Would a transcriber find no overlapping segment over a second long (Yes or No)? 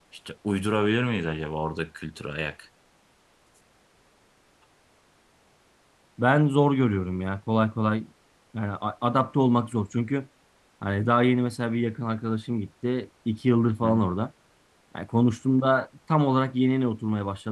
Yes